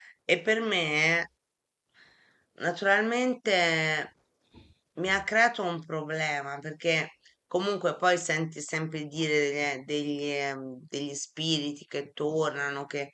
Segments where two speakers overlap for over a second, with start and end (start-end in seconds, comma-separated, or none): none